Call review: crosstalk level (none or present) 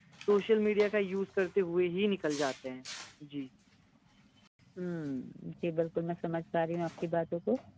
none